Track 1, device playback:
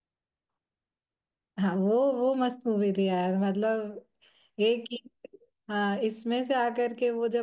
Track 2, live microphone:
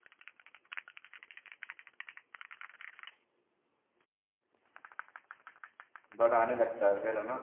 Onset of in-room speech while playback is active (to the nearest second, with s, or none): 6 s